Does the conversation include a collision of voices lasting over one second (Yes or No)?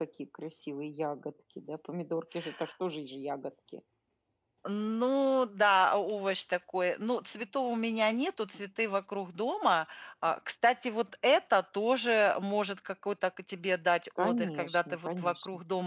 Yes